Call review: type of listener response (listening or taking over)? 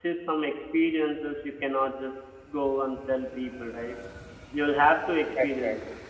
listening